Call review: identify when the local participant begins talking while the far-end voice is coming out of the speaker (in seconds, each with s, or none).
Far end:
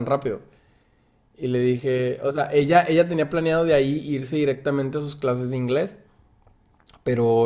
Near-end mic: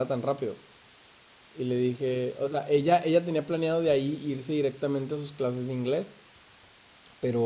none